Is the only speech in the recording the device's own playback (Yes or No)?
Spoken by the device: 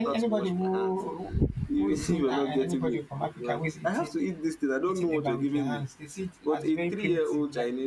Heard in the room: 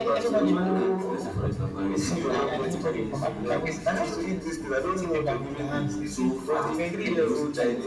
No